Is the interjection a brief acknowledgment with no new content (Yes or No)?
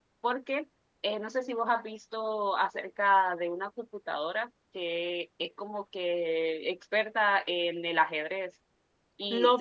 No